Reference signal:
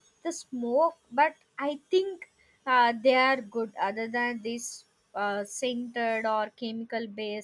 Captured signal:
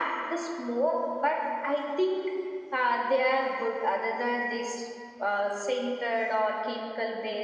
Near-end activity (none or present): none